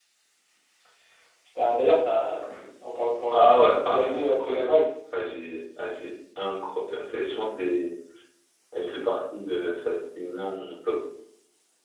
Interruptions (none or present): present